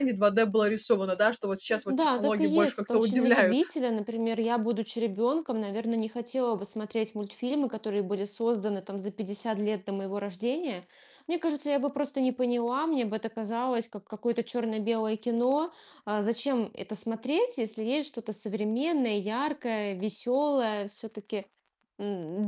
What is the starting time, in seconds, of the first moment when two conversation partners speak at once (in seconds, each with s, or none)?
1.7 s